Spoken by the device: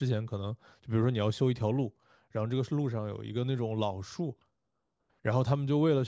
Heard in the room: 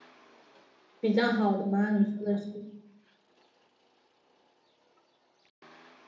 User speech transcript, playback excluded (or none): 比较好的吗？你说的是？